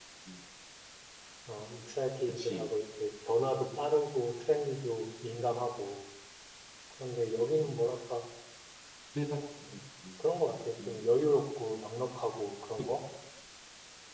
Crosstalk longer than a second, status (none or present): none